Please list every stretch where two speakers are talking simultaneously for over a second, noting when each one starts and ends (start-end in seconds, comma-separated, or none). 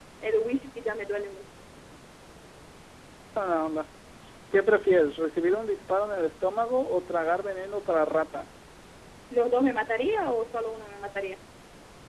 none